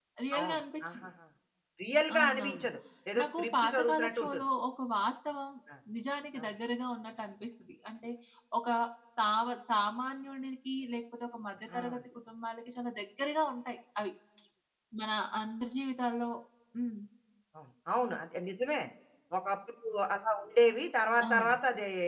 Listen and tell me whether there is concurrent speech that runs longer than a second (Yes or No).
Yes